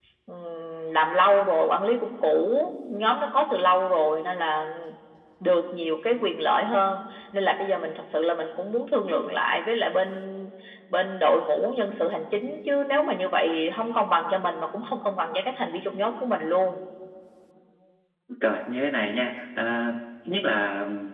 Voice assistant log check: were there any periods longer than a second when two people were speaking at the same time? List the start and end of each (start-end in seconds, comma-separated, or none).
none